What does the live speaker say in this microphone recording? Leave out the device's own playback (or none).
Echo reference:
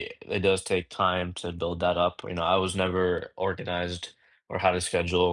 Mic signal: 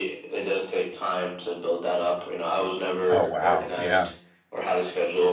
Oh, wow. Yeah.